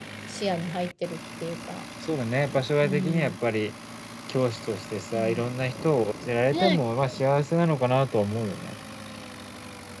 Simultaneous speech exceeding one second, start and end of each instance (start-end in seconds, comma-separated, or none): none